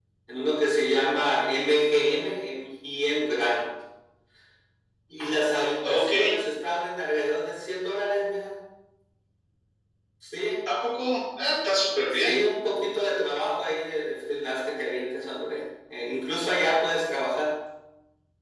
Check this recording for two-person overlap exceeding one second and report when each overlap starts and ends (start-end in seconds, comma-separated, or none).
none